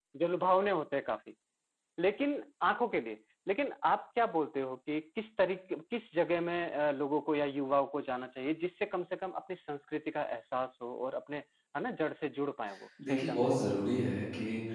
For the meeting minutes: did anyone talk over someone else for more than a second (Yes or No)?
No